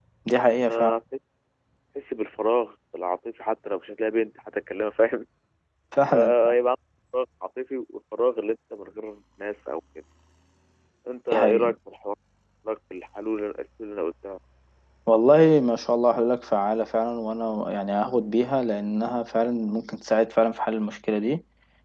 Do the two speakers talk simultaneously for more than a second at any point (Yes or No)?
No